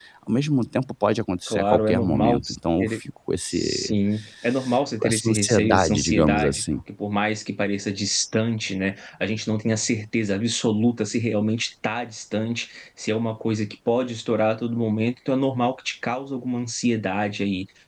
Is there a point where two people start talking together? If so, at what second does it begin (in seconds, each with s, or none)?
1.5 s